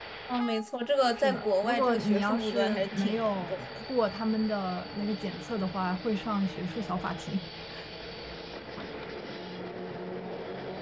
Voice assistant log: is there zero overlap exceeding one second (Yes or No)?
No